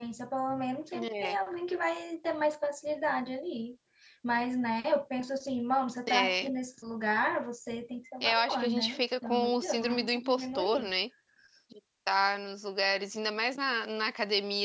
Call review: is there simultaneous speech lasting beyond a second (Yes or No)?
Yes